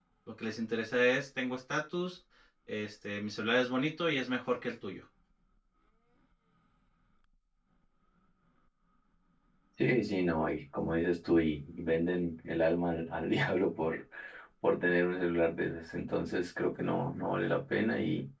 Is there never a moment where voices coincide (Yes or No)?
Yes